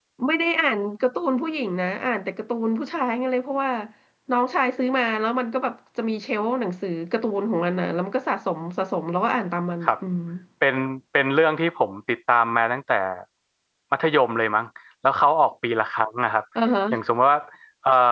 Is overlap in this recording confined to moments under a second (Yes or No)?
Yes